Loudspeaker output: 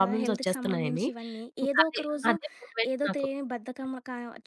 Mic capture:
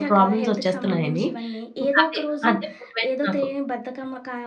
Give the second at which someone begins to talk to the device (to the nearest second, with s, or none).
none